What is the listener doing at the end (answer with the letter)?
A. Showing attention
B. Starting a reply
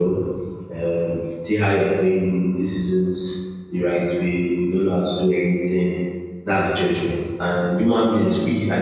A